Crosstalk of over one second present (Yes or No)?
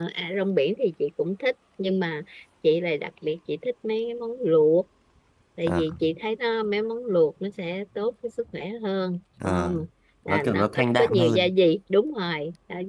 Yes